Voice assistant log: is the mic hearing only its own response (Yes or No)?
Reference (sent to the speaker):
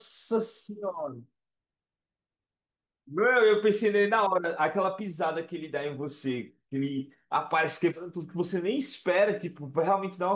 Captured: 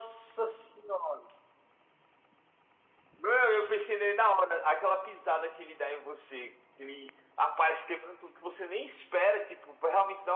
Yes